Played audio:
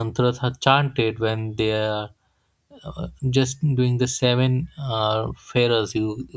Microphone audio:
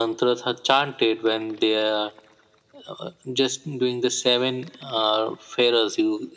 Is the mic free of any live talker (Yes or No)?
Yes